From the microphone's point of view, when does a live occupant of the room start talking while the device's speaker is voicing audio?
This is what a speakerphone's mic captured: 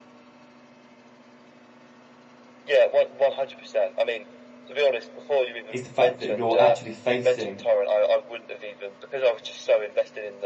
5.7 s

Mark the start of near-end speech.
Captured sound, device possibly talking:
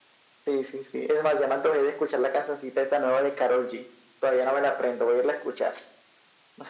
none

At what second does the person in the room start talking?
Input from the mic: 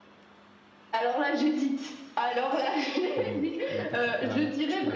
3.1 s

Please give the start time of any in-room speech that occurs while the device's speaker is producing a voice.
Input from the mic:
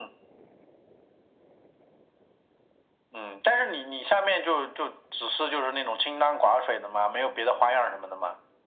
none

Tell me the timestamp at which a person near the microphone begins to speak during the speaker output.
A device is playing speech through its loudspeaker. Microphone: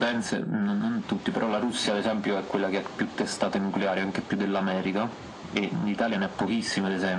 none

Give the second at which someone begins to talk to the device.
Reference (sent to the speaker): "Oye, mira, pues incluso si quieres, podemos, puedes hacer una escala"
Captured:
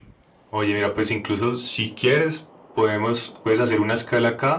none

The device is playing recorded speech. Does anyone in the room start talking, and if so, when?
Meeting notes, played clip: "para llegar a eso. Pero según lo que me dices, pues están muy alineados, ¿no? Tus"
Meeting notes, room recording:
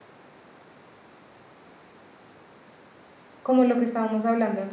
3.4 s

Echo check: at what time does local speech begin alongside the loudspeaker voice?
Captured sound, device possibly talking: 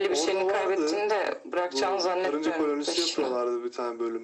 none

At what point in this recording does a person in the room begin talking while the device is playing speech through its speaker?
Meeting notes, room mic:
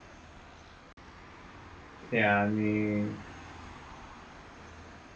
2.1 s

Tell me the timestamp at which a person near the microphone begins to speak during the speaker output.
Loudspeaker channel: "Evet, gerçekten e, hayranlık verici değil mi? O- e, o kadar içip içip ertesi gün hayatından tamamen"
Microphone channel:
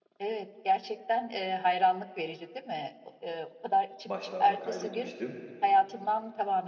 4.0 s

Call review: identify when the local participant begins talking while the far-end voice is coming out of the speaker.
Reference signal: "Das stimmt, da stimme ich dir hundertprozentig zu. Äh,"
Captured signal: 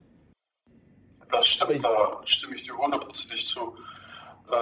1.6 s

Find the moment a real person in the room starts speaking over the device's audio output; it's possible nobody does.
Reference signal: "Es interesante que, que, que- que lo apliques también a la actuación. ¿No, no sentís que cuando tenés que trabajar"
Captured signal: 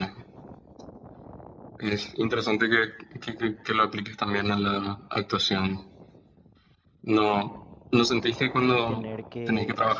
8.7 s

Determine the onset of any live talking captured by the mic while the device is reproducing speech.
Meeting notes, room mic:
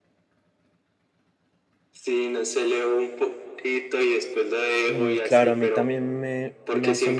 4.8 s

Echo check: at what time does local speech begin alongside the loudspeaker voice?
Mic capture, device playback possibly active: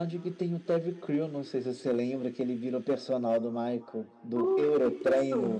4.3 s

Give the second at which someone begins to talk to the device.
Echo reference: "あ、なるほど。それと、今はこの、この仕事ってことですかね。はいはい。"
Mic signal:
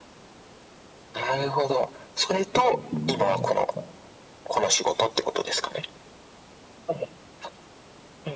2.5 s

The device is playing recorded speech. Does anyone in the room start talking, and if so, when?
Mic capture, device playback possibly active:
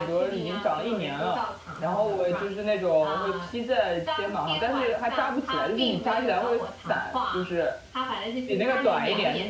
none

